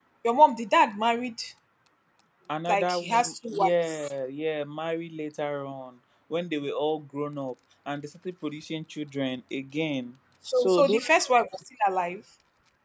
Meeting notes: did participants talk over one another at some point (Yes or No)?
Yes